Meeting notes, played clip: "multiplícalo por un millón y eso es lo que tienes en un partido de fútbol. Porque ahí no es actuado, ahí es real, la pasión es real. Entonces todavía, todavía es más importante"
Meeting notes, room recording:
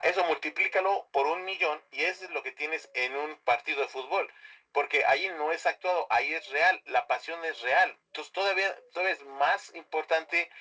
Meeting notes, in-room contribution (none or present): none